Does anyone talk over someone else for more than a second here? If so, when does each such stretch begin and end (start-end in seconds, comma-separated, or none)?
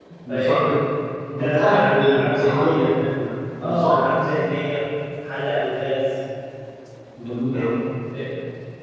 1.4-3.0